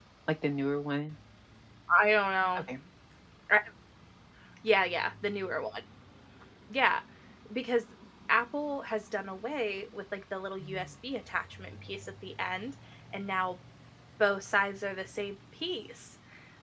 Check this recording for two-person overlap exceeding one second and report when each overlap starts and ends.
none

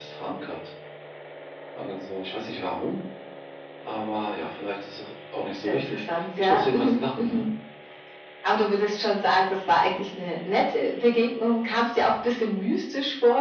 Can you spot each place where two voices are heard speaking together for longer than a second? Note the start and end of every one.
5.7-7.5

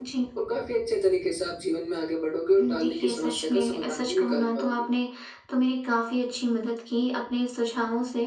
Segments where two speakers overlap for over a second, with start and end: 2.6-4.9

